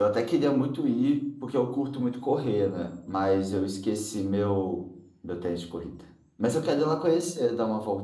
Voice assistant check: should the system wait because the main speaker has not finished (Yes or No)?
Yes